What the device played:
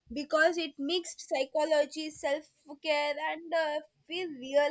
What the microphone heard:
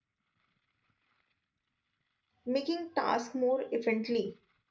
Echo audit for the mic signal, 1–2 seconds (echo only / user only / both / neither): neither